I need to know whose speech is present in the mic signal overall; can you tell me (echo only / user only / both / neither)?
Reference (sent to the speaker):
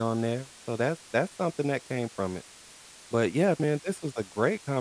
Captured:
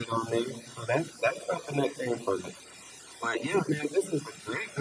echo only